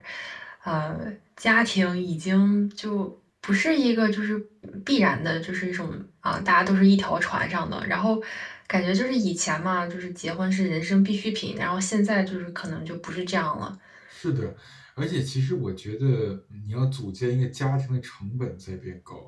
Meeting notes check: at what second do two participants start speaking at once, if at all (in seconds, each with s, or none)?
none